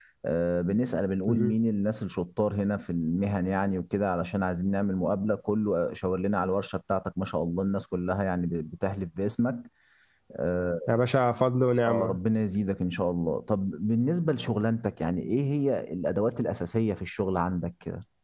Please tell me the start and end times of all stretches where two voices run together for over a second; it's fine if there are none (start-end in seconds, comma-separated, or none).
none